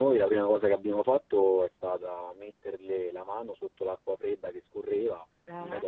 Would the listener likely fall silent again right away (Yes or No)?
Yes